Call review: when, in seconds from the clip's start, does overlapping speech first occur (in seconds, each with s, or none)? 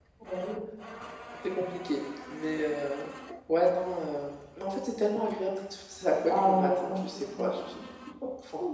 6.3 s